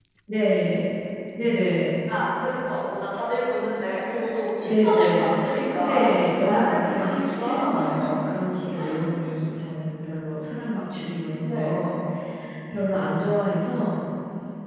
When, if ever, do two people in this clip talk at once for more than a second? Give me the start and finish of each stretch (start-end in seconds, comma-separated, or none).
4.6-7.9